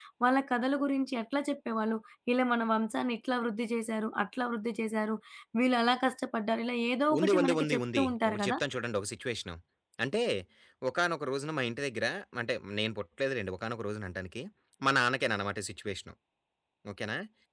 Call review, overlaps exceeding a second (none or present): present